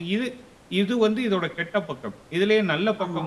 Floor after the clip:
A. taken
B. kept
B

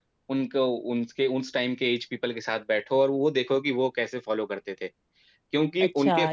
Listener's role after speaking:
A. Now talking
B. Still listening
A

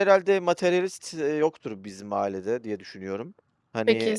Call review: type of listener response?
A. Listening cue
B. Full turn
B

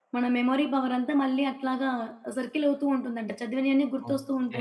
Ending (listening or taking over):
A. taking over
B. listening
A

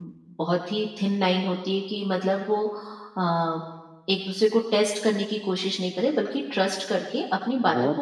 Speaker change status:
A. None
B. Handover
B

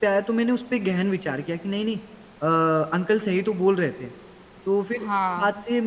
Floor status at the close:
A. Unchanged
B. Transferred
A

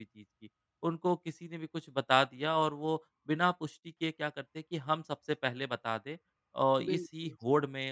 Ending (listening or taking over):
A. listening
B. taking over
A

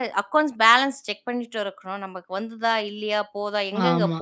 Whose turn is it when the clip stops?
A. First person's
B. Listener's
A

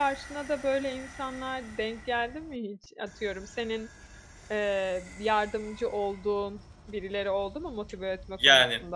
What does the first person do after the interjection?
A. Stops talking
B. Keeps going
A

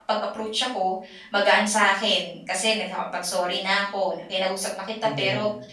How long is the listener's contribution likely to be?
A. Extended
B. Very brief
B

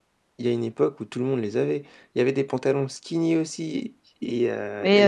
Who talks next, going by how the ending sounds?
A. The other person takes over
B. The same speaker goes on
A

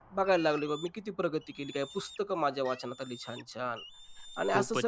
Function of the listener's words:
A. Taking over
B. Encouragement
A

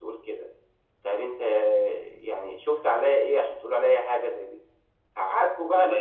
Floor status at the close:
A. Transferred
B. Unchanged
A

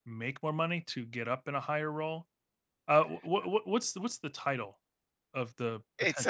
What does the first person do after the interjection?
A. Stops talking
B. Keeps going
A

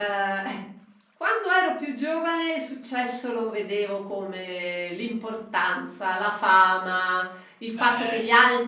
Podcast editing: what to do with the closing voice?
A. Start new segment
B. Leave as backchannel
B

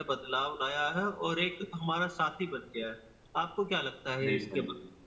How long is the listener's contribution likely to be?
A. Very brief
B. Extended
B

